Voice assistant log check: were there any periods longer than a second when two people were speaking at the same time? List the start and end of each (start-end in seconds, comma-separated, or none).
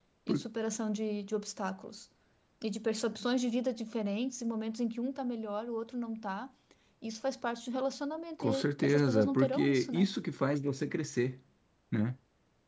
8.4-10.1